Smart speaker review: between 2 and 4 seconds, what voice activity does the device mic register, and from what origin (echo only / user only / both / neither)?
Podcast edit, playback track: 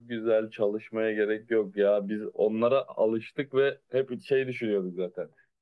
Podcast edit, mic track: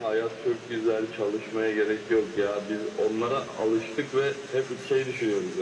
echo only